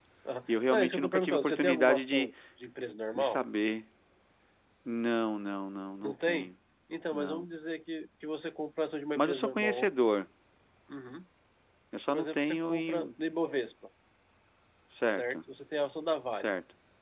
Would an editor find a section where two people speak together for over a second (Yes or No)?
Yes